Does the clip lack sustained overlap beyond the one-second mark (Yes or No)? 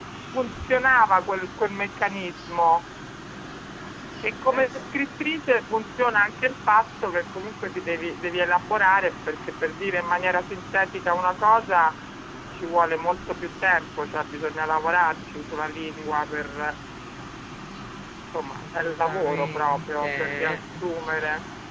No